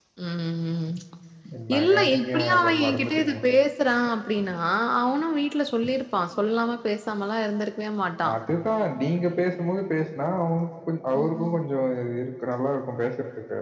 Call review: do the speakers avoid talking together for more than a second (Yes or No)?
No